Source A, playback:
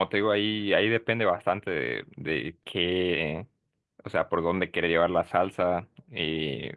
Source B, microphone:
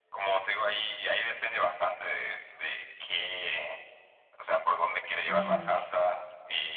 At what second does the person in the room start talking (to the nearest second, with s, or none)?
5 s